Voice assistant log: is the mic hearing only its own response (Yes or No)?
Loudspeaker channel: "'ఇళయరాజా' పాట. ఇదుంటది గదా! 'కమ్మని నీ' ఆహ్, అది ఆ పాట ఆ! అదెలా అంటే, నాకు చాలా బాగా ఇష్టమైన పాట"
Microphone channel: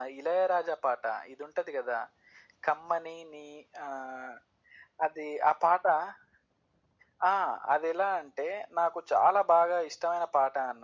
Yes